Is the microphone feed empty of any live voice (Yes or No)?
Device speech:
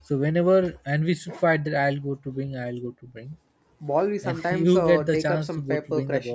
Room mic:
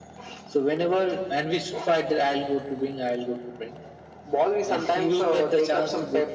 Yes